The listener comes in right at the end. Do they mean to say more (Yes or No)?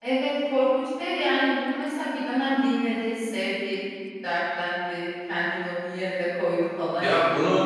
Yes